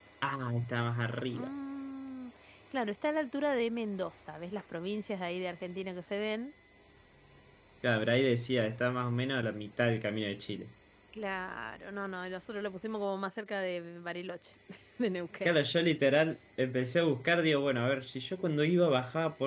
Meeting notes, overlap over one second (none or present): none